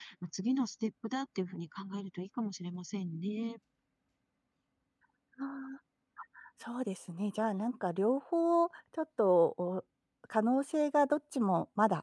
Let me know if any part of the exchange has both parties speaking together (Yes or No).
No